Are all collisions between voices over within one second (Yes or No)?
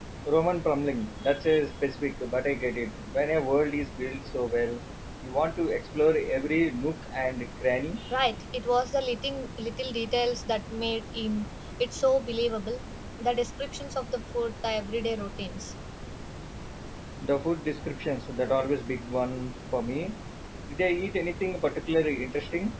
Yes